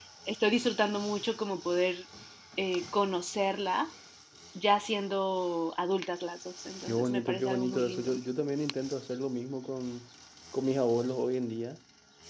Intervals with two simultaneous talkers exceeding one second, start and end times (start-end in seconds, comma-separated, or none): 6.9-8.2